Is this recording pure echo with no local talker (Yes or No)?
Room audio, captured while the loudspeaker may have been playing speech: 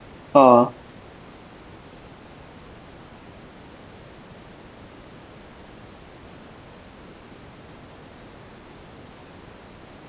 No